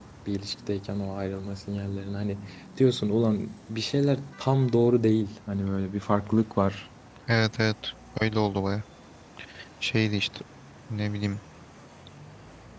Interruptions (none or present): none